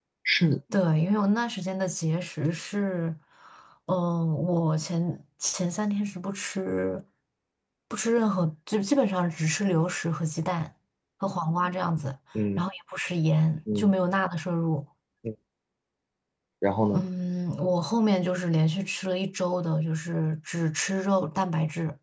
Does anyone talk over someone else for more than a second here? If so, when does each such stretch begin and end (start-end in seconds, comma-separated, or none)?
none